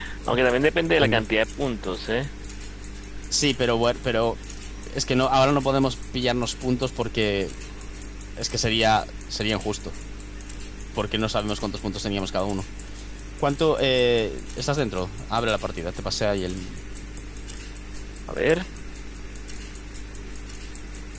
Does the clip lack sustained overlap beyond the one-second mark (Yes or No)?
Yes